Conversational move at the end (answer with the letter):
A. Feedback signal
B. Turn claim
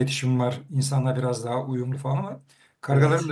A